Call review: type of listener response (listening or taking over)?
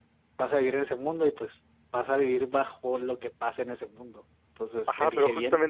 taking over